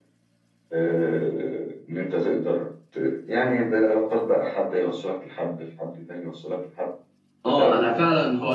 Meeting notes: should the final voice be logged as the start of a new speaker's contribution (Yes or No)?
Yes